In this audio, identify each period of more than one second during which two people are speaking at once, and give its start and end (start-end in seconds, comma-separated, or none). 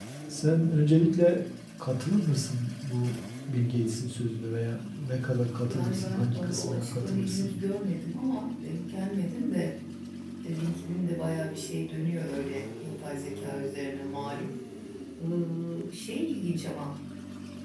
5.7-7.5